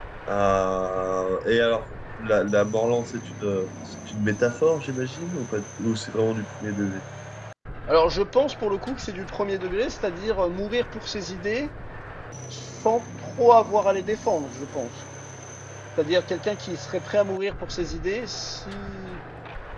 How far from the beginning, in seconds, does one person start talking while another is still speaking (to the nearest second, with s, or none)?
none